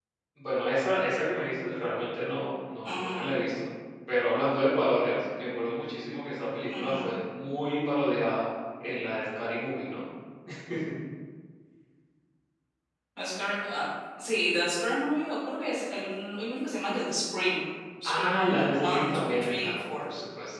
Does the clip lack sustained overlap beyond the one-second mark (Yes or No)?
No